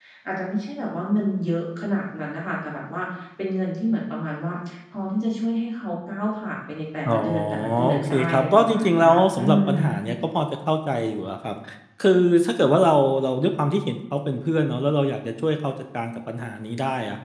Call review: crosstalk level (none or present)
present